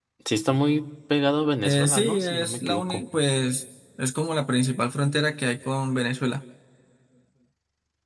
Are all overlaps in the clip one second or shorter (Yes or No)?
No